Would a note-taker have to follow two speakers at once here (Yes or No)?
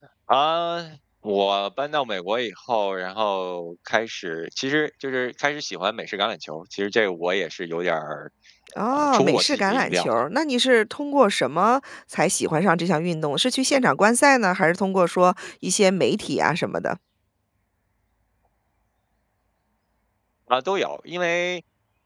Yes